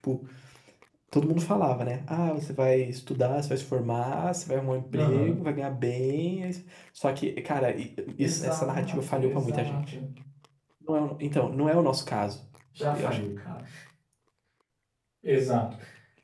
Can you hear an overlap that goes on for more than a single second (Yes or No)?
Yes